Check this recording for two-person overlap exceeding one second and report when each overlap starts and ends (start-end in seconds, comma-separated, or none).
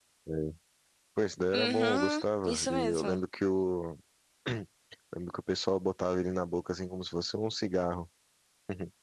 1.5-3.2